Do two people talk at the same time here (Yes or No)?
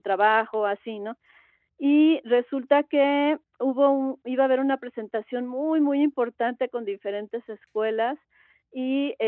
No